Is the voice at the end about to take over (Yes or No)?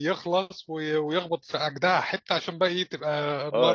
Yes